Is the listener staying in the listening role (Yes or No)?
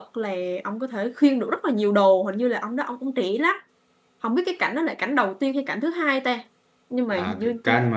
No